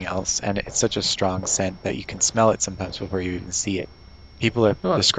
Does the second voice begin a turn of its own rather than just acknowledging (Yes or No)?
No